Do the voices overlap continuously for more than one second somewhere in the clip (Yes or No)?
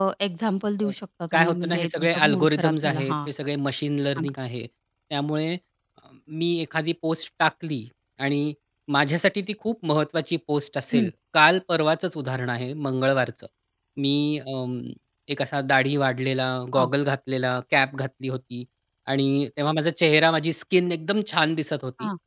Yes